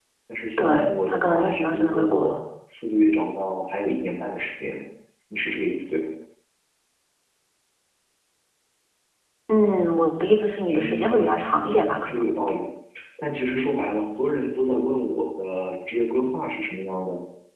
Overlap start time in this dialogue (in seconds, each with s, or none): 0.6 s